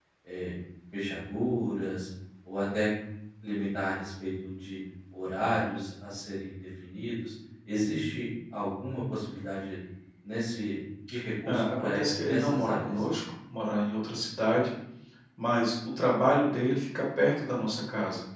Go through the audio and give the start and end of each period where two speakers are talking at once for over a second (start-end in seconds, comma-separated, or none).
11.4-13.0